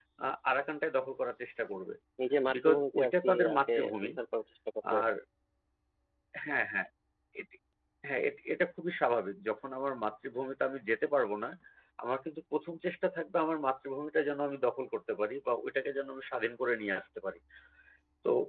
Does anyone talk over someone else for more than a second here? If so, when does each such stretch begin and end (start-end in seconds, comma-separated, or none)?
2.5-4.1